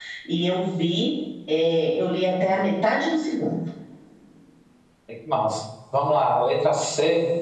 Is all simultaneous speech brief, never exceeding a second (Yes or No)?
Yes